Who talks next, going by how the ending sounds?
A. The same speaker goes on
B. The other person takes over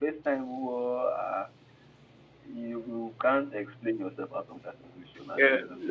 B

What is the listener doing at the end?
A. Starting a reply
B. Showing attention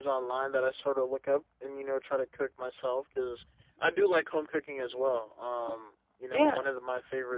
B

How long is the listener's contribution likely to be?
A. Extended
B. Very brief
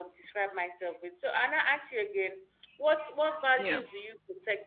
B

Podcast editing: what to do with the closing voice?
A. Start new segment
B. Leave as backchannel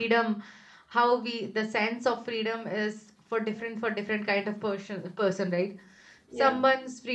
B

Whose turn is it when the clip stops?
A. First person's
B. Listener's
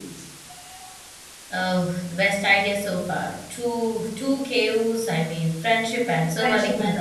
B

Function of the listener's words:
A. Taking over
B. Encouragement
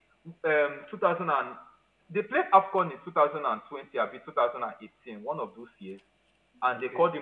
B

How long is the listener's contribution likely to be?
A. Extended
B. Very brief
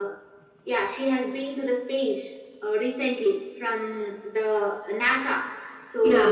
B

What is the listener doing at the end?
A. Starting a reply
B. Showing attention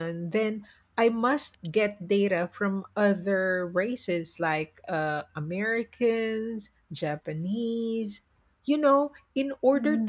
B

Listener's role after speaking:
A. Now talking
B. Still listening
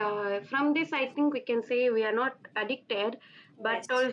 B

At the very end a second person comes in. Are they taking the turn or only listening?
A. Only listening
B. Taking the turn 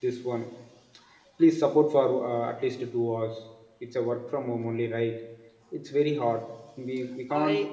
A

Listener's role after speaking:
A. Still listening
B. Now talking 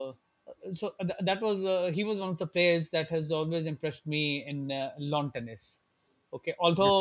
A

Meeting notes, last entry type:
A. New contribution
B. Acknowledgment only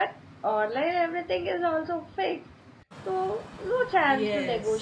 A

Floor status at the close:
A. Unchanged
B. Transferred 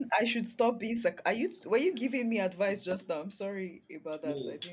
B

